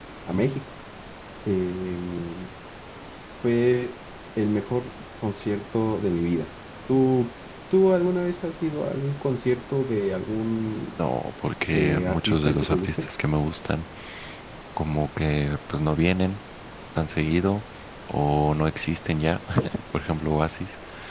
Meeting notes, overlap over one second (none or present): present